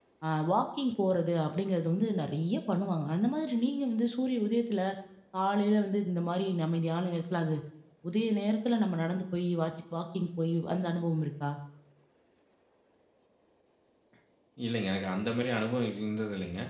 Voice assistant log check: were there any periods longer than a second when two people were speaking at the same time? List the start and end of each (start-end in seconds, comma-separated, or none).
none